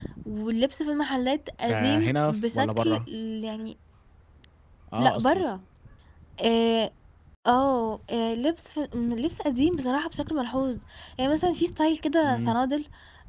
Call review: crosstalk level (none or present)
present